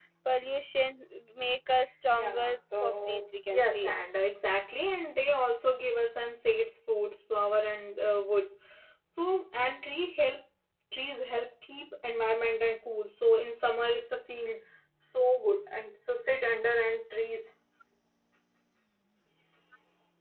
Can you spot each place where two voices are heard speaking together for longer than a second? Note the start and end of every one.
2.2-3.9

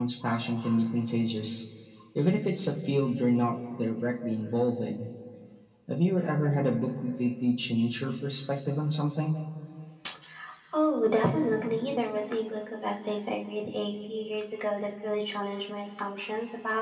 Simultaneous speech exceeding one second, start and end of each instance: none

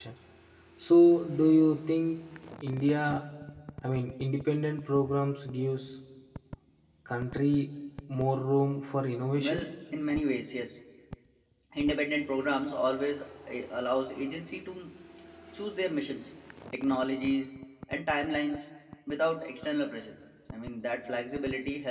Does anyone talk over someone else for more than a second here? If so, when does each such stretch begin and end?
none

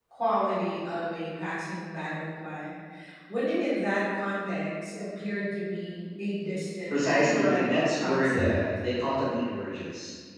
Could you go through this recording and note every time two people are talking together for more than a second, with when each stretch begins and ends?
6.9-8.6

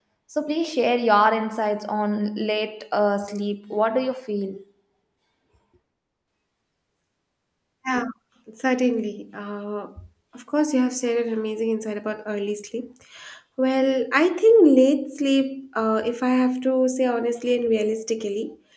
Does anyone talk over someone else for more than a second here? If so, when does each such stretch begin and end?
none

